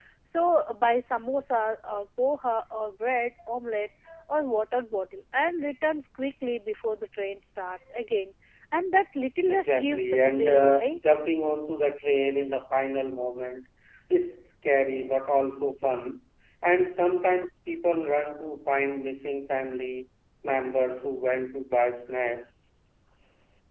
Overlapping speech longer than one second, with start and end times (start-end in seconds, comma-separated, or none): 9.5-11.0